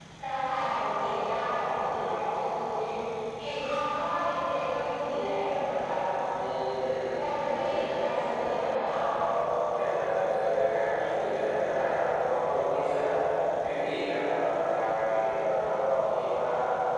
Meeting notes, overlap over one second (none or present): present